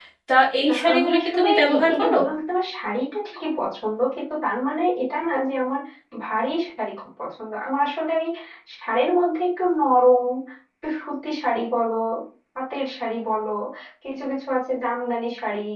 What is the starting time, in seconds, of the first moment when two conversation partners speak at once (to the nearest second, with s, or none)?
1 s